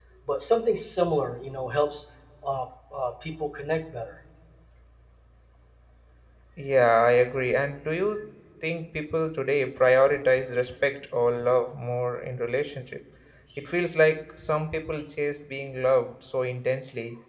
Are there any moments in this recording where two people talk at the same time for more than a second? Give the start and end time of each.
none

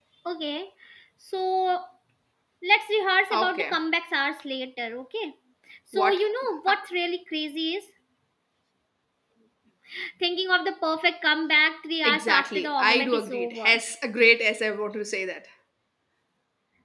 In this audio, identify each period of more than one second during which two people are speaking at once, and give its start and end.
12.0-13.8

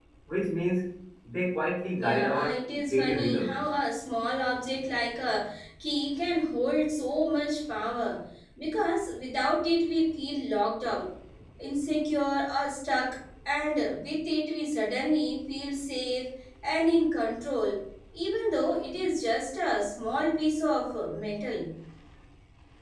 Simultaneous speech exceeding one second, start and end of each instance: 2.0-3.6

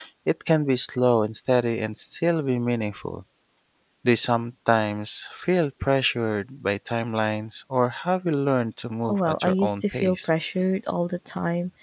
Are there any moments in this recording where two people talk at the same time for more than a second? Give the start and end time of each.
9.1-10.3

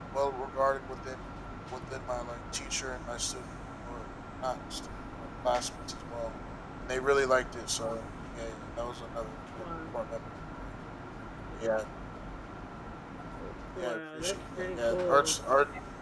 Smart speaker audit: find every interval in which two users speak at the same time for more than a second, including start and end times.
13.8-15.4

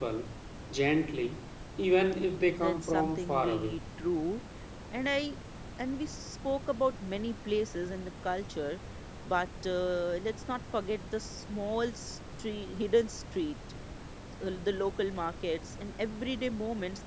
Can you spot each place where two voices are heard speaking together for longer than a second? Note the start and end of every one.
2.6-3.8

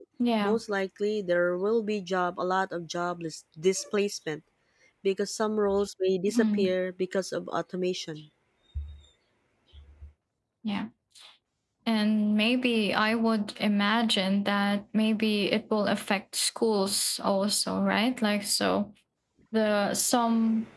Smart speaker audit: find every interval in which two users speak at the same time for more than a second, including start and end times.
none

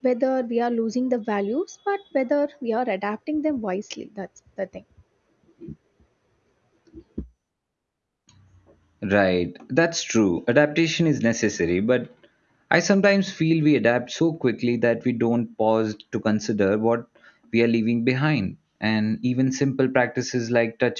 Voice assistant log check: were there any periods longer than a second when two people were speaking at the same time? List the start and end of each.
none

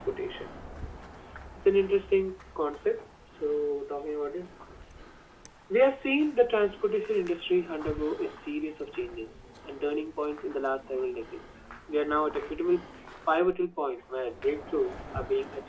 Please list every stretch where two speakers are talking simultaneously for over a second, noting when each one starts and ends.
none

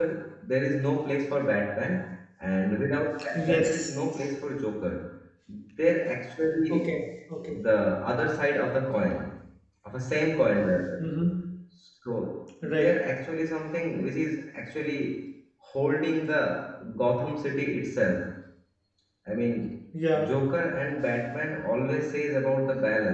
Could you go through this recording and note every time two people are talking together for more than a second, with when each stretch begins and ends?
none

